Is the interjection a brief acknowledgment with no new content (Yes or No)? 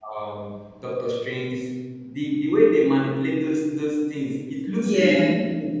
Yes